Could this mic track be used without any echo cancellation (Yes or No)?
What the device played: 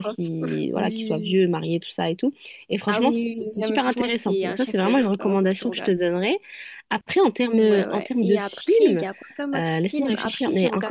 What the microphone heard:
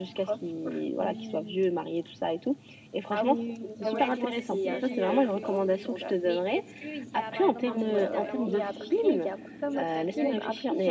No